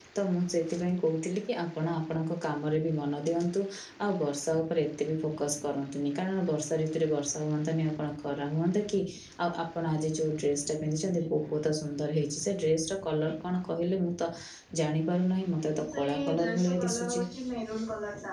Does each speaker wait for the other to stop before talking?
No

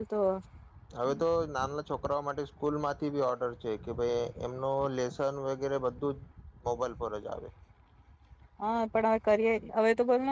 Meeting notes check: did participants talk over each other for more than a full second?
No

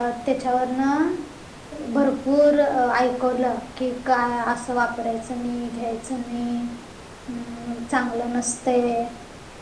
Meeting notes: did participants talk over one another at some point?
No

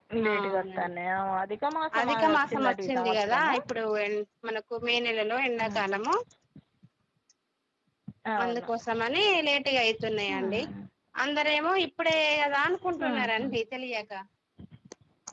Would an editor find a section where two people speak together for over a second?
Yes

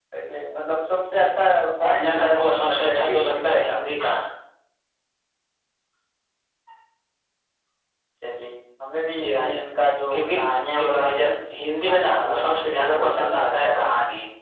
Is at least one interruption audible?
Yes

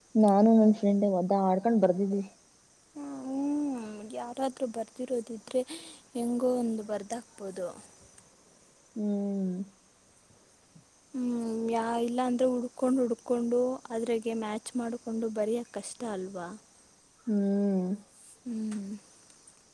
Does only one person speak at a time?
Yes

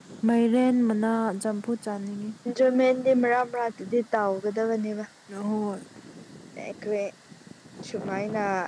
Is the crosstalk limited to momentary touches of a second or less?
Yes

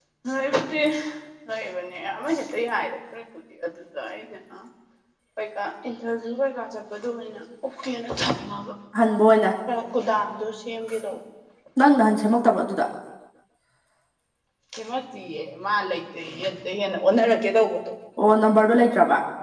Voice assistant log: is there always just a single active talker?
Yes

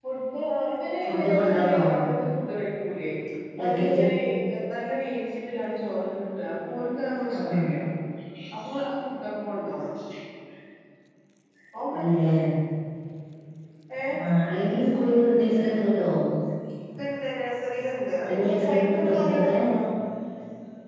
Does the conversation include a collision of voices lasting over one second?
Yes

